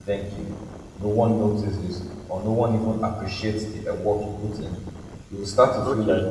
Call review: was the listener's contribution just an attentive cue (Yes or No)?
Yes